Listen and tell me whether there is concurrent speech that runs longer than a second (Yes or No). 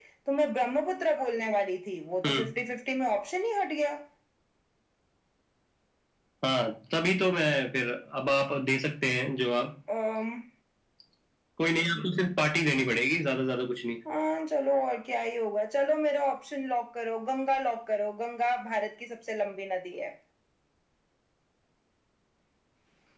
No